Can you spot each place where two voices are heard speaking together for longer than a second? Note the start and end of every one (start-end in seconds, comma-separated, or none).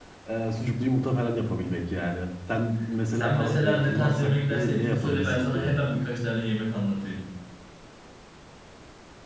3.1-5.7